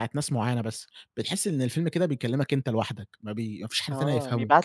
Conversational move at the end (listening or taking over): taking over